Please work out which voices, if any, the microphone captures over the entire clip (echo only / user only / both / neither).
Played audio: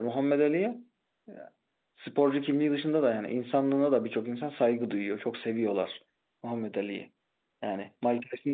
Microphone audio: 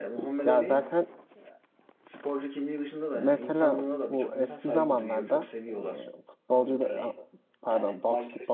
both